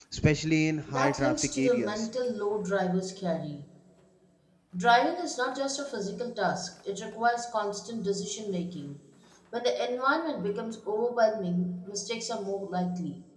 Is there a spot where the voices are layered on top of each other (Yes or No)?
Yes